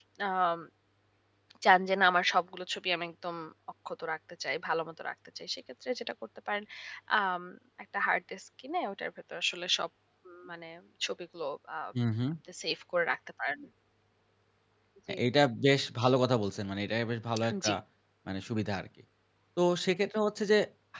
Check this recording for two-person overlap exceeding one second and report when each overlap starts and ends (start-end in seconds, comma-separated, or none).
none